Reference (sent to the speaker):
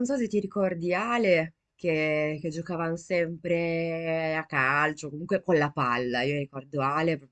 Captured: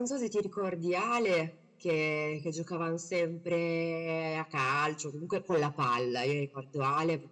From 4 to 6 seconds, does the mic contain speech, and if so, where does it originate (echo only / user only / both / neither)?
echo only